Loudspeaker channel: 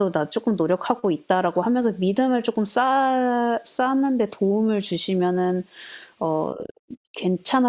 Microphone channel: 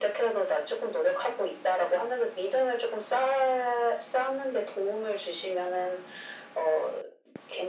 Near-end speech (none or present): none